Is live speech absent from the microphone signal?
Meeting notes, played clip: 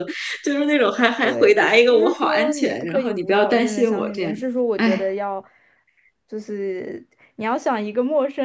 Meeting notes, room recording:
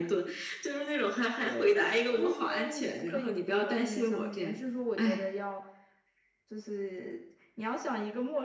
Yes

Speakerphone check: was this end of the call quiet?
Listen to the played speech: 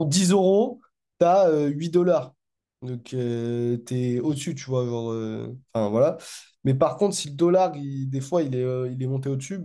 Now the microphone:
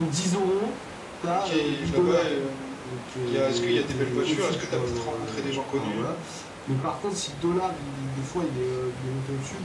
No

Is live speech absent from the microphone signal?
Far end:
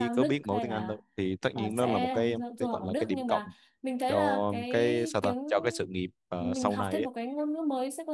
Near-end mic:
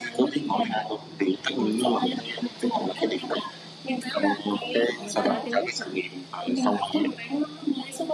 No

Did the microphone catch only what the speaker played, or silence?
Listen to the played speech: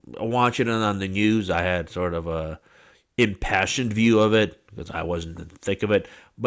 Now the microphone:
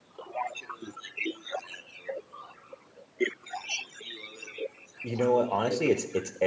No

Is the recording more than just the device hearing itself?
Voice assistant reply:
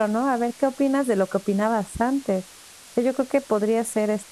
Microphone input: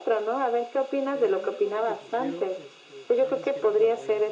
Yes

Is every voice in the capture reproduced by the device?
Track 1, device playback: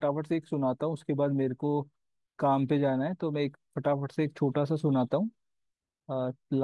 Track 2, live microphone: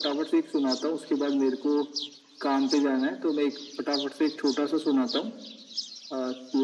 Yes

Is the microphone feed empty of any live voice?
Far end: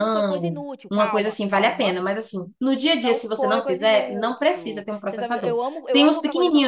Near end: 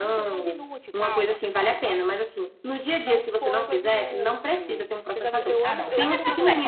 No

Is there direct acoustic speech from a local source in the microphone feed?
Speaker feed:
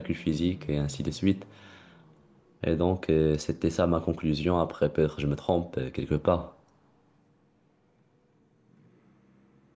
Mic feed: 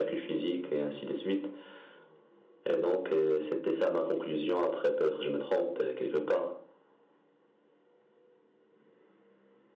No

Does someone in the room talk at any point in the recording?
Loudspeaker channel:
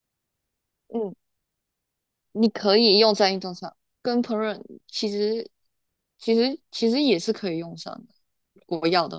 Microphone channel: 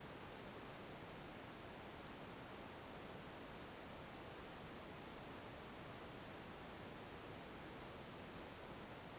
No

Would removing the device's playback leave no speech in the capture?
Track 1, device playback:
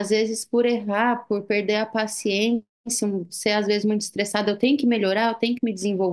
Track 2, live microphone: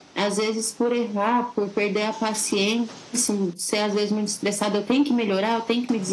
Yes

